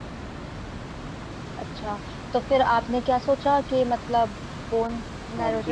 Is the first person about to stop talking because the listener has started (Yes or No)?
Yes